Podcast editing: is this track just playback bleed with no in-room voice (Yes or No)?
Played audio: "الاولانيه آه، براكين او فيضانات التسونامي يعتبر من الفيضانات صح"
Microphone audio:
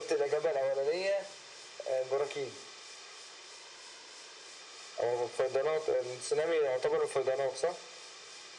Yes